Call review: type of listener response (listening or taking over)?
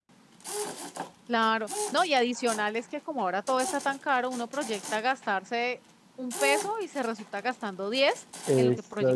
taking over